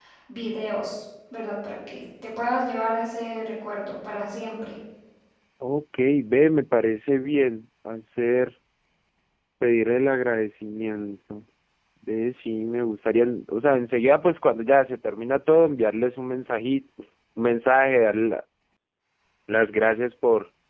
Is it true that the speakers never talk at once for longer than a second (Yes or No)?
Yes